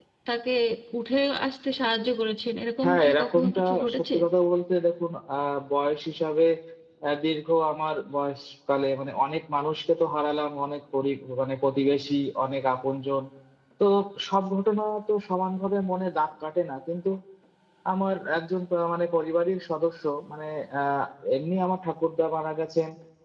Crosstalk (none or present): present